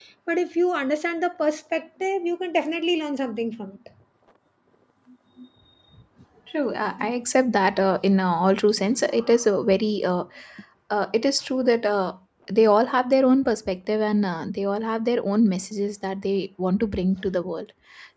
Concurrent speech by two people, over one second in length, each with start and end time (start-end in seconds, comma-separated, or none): none